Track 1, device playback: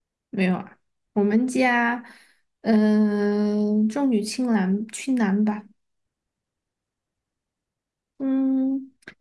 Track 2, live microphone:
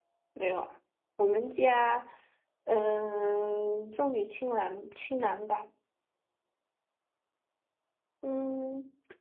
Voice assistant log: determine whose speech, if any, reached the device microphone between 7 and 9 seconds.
echo only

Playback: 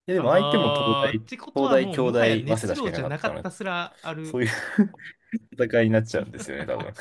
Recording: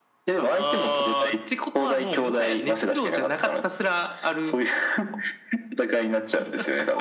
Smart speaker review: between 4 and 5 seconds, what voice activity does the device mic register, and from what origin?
echo only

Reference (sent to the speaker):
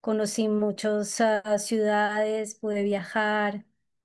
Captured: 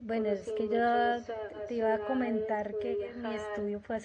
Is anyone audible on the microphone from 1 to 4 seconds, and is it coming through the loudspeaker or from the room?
both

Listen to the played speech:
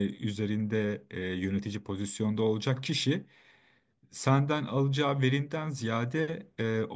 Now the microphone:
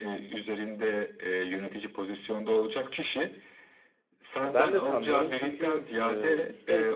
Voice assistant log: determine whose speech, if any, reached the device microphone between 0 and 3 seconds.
echo only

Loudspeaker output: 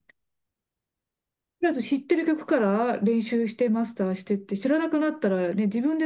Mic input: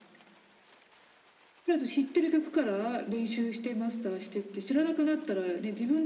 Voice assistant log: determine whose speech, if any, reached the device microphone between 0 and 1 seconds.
neither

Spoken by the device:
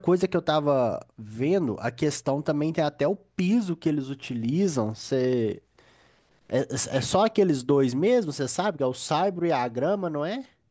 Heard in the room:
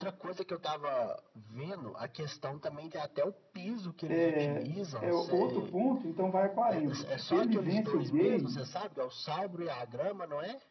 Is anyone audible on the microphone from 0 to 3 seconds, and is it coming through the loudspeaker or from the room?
echo only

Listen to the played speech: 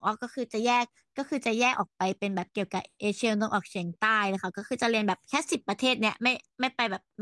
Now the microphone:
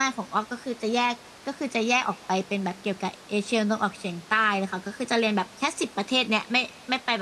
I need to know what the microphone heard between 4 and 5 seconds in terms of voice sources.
echo only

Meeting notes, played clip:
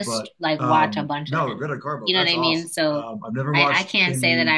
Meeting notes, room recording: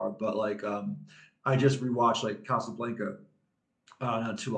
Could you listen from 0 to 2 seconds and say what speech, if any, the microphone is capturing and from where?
user only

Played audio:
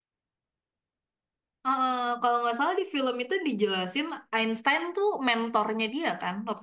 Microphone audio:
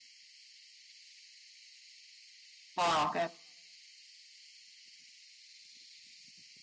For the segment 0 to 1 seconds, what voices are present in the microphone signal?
neither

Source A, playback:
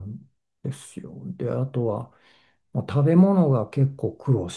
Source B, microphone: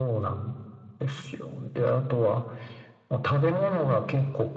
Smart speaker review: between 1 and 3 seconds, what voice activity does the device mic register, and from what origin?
echo only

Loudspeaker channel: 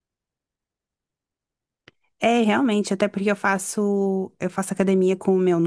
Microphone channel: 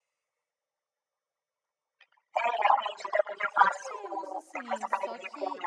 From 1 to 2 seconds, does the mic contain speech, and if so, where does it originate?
neither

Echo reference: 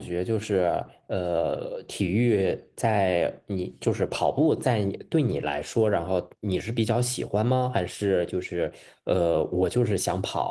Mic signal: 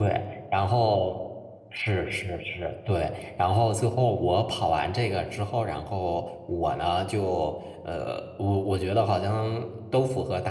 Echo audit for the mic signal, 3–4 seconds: user only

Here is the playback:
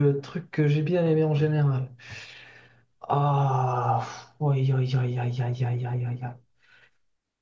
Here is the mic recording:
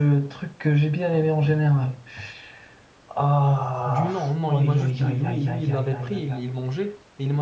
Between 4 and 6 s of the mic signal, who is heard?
both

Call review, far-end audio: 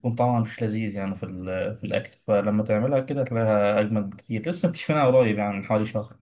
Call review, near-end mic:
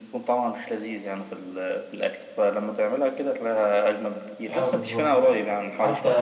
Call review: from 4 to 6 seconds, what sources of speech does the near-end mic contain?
both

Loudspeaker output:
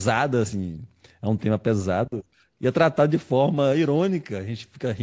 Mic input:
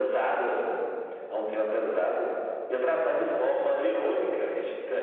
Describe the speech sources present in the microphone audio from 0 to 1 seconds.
echo only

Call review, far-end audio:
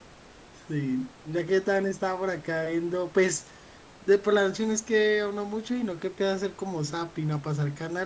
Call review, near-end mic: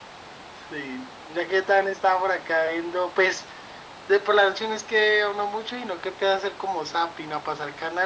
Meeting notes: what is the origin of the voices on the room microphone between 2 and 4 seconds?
echo only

